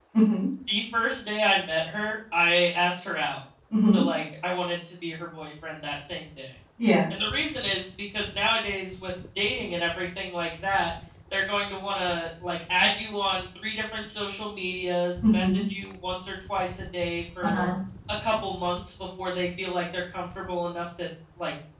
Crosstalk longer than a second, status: none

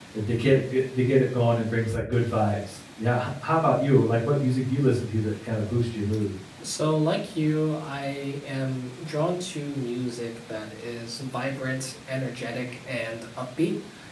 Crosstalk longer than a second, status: none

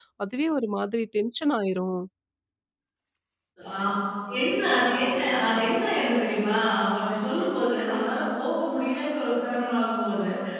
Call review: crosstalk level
none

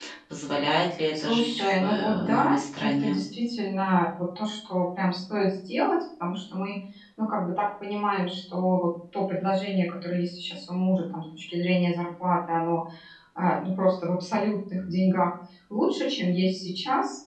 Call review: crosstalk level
present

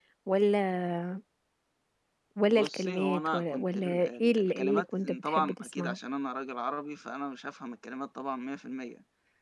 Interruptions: present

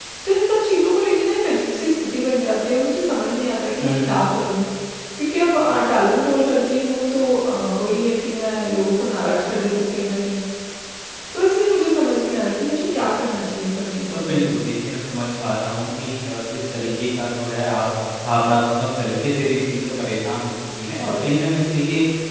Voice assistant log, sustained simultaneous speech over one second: none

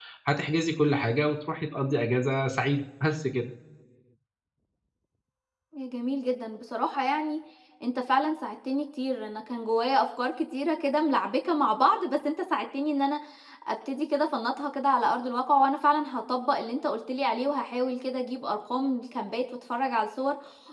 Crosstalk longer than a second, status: none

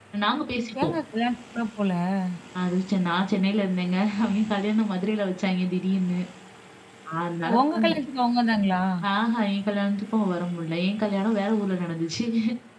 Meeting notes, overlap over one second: none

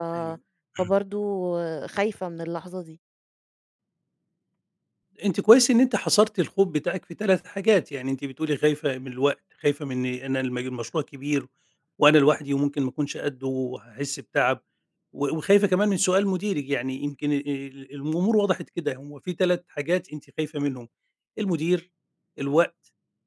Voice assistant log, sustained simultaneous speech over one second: none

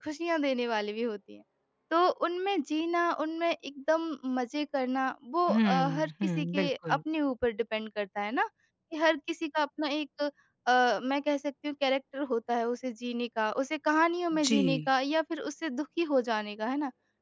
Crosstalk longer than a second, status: present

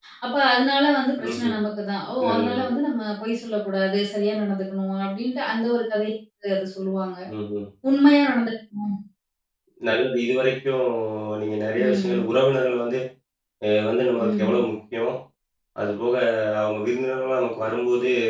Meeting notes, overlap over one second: none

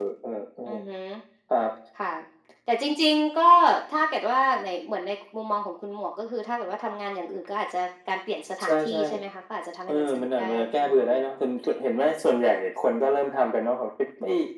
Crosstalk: present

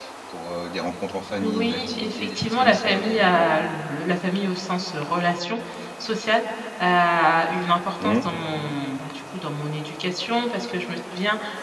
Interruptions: present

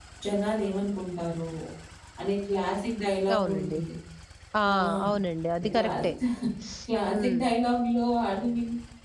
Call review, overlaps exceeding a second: none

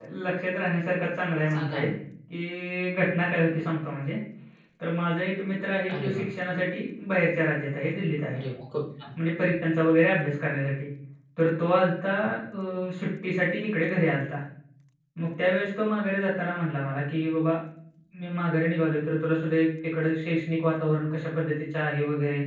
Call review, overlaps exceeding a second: none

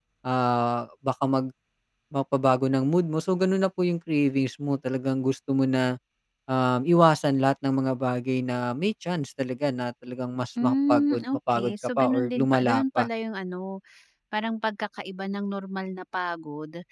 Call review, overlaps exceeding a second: present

